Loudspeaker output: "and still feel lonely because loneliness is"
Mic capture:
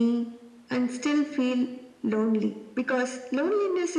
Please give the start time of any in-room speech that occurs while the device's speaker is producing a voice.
none

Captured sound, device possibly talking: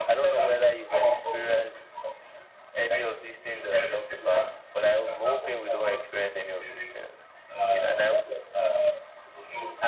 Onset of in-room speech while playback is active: none

